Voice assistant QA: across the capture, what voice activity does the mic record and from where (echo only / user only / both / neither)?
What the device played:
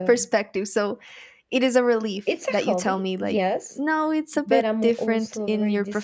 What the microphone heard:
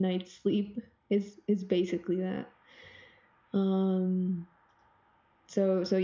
user only